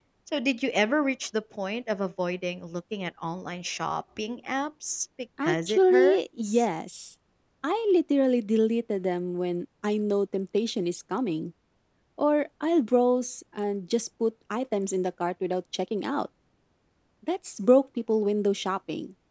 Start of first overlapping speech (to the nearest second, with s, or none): 5 s